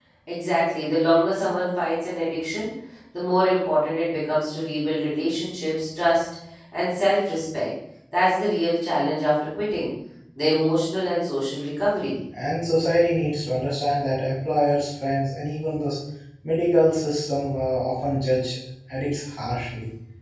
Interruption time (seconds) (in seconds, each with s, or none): none